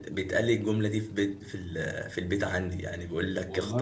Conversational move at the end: listening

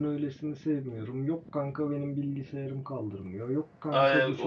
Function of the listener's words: taking over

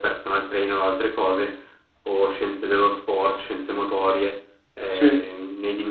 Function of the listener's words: listening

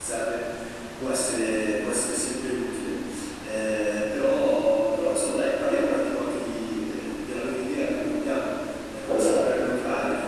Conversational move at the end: listening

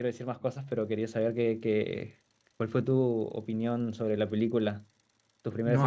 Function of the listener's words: taking over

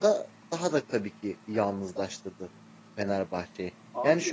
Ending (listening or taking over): listening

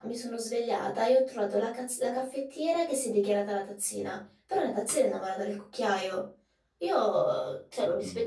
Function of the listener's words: listening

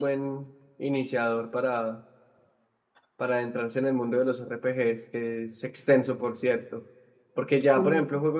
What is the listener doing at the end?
listening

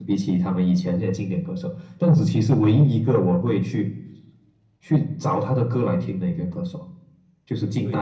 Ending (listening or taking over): taking over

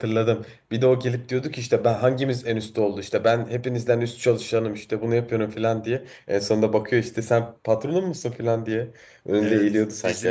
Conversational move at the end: taking over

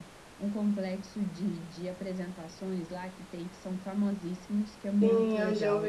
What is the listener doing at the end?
taking over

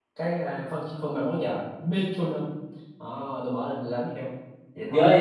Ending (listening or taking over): taking over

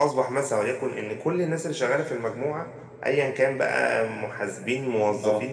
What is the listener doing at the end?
listening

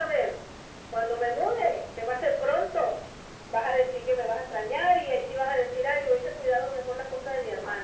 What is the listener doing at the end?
taking over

